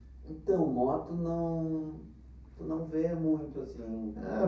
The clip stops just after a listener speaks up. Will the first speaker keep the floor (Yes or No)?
No